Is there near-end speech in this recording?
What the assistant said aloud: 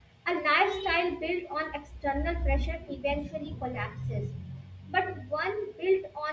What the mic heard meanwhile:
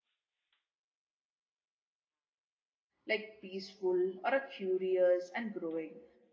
Yes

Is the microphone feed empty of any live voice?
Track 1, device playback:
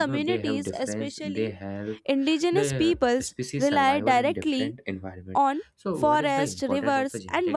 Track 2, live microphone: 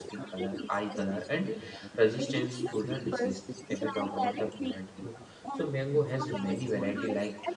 No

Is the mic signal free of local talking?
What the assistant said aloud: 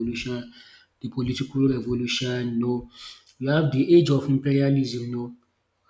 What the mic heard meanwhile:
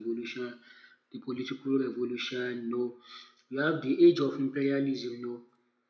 Yes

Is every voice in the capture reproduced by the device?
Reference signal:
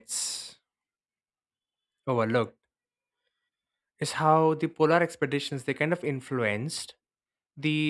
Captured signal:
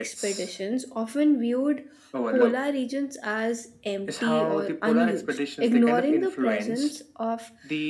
No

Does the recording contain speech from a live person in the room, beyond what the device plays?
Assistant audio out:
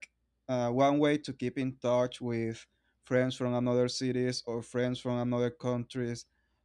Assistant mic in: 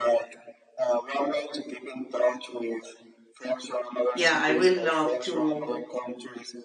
Yes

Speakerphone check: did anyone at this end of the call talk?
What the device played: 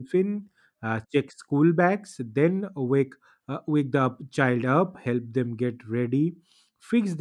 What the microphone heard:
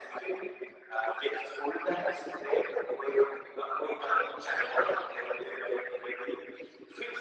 No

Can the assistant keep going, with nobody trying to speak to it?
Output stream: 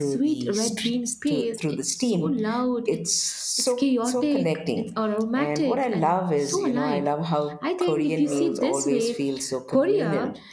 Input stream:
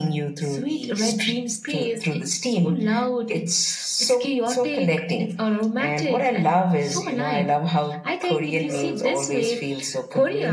Yes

